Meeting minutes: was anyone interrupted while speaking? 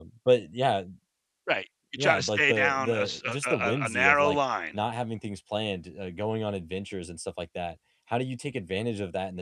Yes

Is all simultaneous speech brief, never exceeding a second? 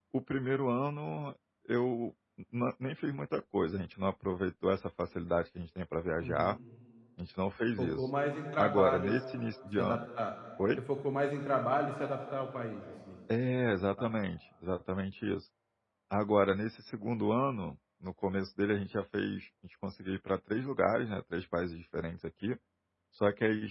Yes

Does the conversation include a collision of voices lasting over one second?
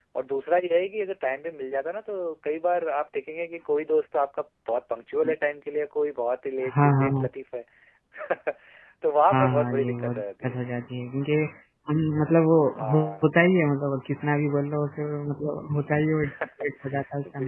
Yes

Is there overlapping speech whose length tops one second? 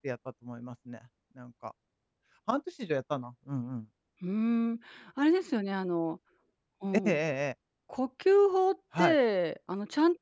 No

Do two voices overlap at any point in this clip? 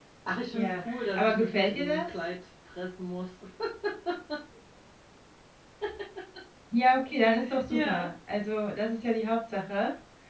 Yes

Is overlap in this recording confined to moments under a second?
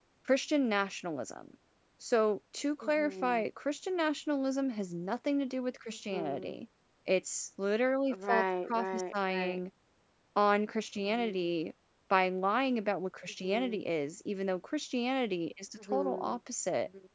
No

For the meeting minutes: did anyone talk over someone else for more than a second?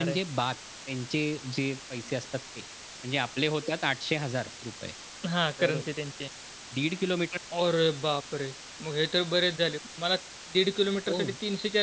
No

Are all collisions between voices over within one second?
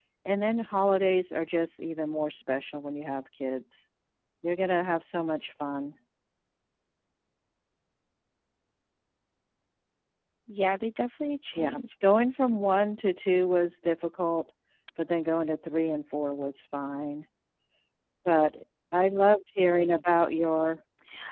Yes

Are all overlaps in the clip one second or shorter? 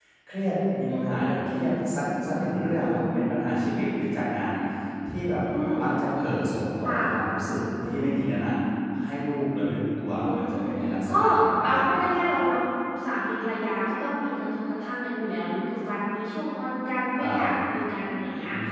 Yes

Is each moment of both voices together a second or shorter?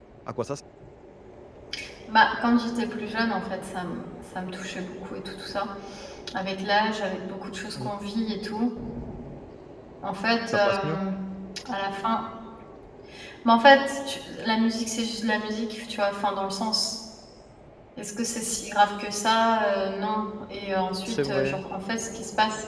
Yes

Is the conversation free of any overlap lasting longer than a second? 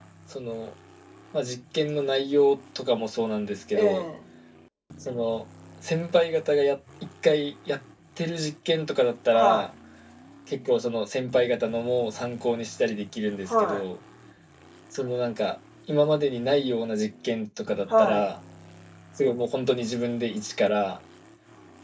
Yes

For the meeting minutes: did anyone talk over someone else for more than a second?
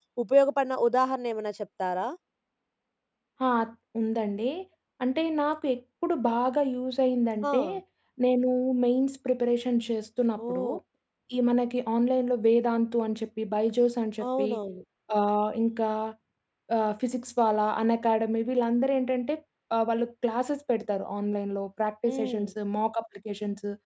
No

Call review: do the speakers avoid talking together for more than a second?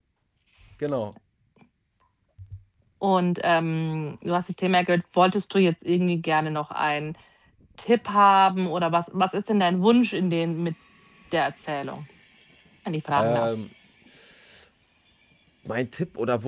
Yes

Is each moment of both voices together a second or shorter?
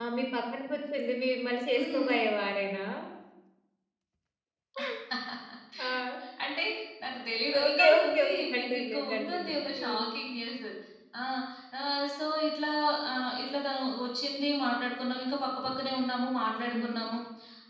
No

